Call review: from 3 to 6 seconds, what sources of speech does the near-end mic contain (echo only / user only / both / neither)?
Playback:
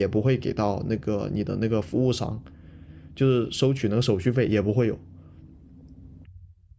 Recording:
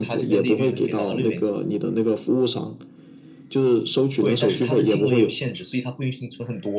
both